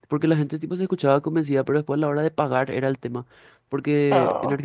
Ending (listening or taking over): listening